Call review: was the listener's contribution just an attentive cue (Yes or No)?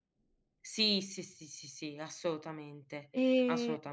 No